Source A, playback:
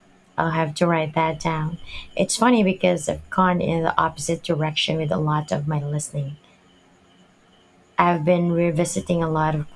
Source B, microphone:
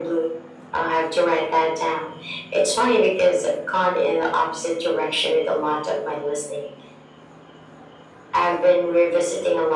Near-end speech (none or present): none